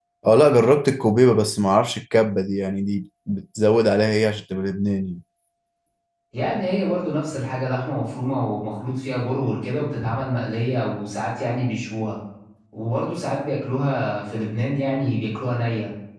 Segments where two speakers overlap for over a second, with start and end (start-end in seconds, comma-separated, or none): none